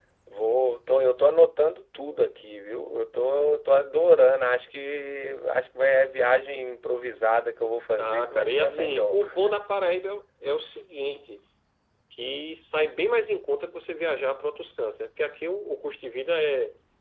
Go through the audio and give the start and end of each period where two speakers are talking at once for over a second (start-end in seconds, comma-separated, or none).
8.0-9.2